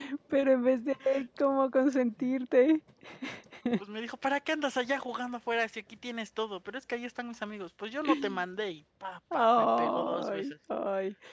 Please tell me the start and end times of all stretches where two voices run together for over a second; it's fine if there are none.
9.3-10.5

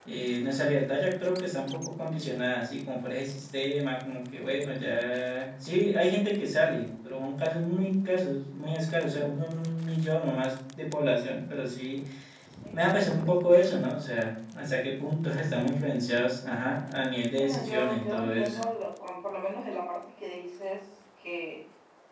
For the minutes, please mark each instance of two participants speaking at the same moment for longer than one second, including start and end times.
17.4-18.6

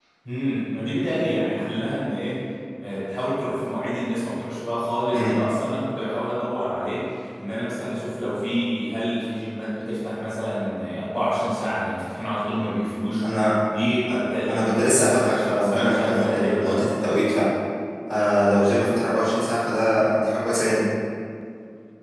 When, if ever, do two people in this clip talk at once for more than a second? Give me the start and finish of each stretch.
14.5-16.8

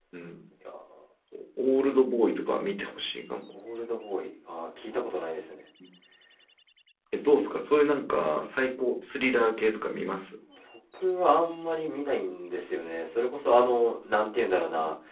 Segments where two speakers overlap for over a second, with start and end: none

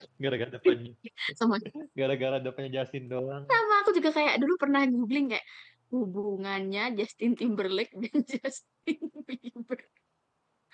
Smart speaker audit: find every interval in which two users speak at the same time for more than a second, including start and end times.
none

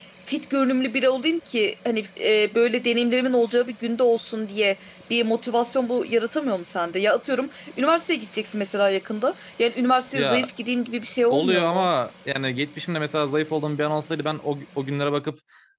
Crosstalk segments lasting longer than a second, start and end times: none

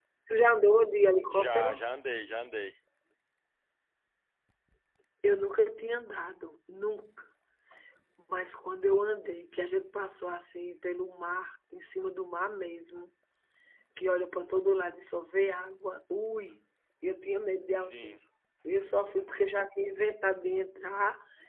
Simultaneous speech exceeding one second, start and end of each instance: none

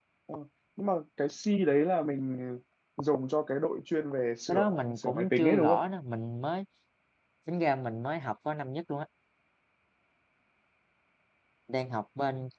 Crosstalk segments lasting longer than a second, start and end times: 4.5-5.8

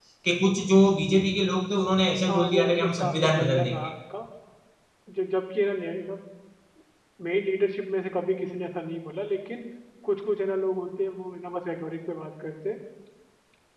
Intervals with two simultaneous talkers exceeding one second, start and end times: 2.3-3.8

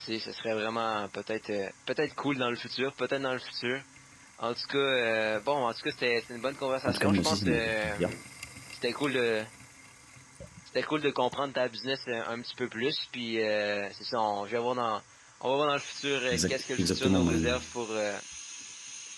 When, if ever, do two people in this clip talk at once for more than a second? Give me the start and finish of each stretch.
6.9-8.2, 16.3-17.6

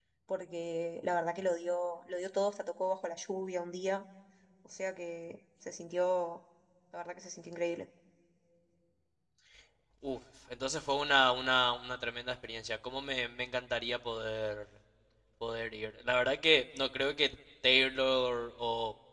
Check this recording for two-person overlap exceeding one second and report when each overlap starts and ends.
none

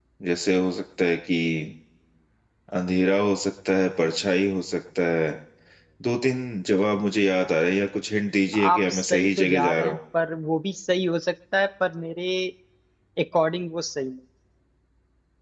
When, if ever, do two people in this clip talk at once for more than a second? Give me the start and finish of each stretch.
8.7-10.0

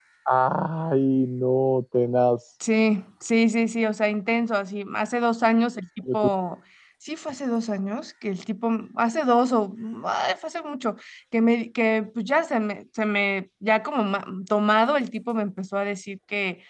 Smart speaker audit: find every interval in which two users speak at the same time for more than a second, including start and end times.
none

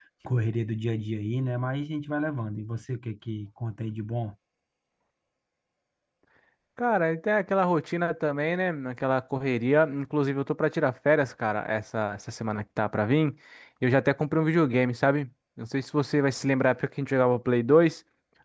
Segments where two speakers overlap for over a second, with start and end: none

